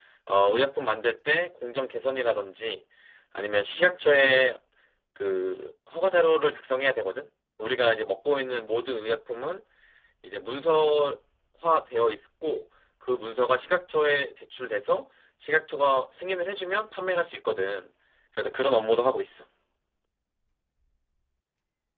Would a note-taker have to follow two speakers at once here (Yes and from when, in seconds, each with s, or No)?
No